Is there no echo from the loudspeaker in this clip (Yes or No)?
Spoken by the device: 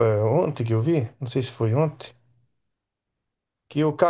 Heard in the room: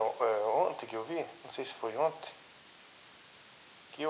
No